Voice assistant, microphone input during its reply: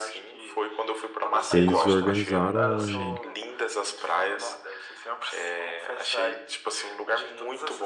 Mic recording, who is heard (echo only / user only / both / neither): both